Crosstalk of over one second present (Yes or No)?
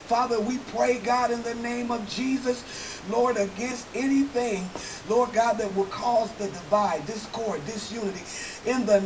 No